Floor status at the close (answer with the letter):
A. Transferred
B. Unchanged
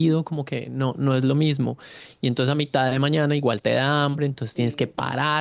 B